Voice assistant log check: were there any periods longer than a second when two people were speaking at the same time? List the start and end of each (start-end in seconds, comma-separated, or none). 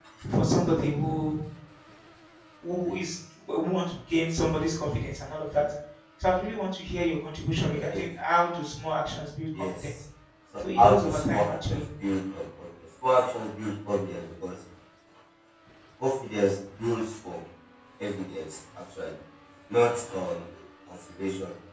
10.6-11.8